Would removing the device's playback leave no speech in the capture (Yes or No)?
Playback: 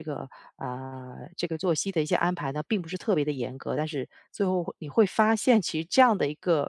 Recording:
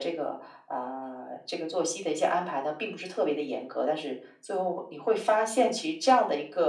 Yes